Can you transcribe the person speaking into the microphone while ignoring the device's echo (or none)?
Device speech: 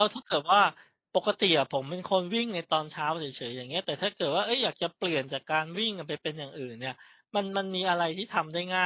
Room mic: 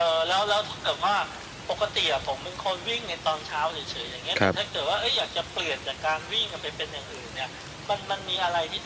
ครับ